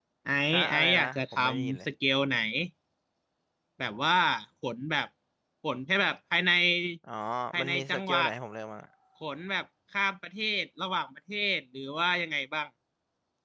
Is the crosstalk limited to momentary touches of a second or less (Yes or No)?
No